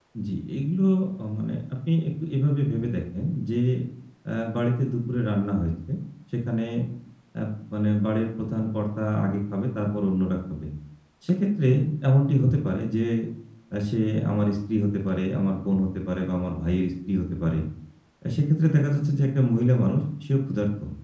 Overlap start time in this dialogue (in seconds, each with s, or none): none